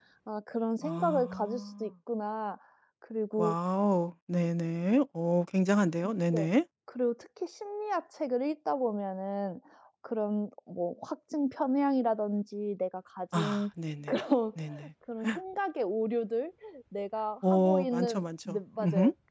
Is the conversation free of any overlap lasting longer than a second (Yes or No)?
No